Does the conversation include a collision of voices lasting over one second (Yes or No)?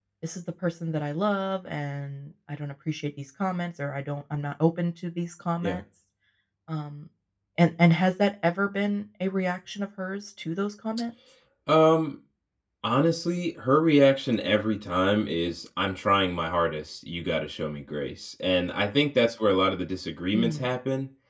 No